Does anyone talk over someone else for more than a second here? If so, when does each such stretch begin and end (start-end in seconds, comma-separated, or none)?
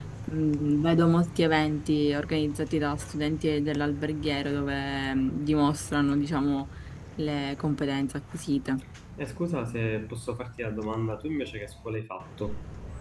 none